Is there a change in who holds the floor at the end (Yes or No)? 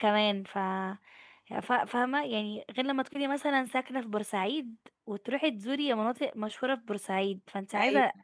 No